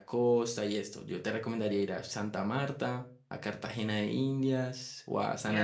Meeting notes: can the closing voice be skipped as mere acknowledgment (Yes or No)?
No